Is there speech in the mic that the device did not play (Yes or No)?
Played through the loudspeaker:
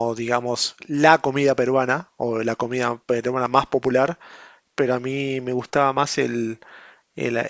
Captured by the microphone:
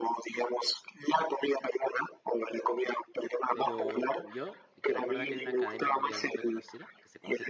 Yes